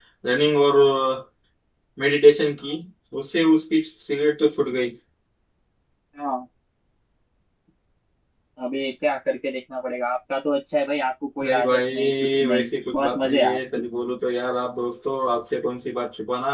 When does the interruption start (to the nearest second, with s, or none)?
11 s